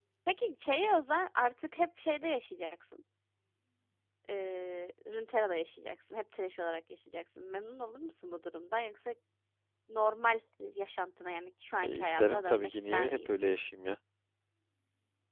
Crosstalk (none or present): present